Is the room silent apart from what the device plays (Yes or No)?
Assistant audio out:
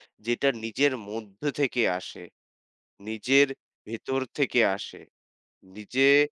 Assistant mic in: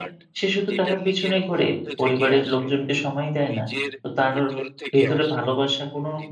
No